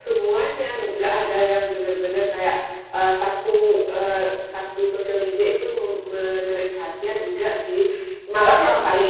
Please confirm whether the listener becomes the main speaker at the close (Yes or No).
No